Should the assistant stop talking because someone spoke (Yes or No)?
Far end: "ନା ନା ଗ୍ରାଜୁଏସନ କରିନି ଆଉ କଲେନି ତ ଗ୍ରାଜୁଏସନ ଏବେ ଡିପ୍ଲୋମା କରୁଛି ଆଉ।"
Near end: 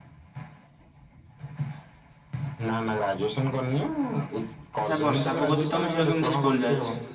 Yes